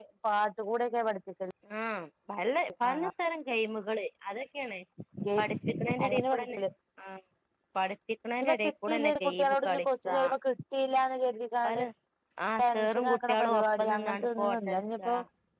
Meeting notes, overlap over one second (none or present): present